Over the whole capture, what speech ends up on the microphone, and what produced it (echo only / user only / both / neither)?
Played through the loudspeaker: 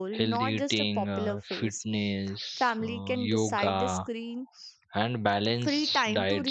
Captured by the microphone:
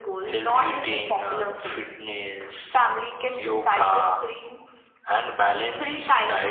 echo only